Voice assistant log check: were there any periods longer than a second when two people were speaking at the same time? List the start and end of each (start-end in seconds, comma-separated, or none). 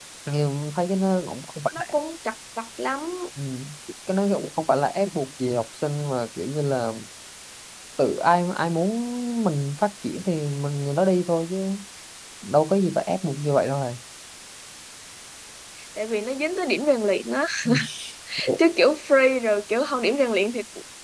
none